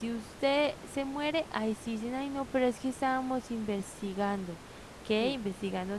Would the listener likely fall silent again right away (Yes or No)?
Yes